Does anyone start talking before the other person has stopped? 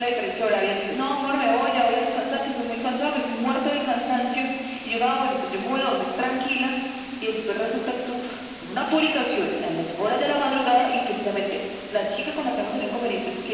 No

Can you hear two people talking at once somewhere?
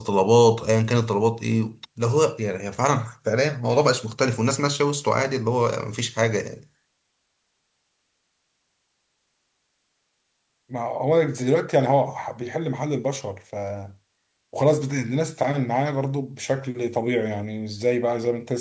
No

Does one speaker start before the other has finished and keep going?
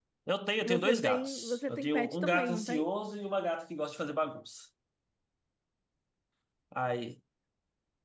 Yes, from 0.6 s

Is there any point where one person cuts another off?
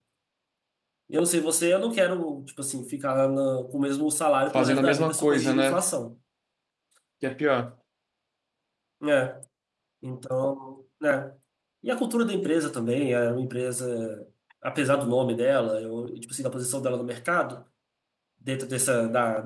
Yes, from 4.5 s

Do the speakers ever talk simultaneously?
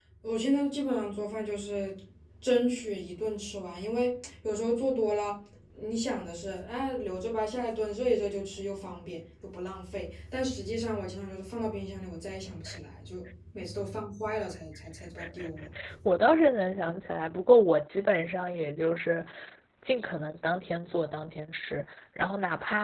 No

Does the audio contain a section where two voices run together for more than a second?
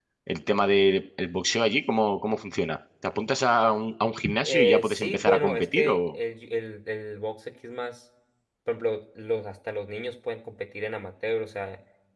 Yes, from 4.4 s

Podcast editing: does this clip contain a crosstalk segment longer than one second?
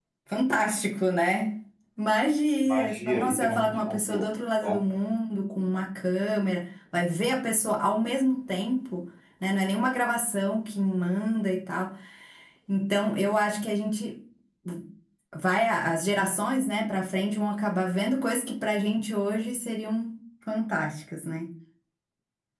Yes, from 2.6 s

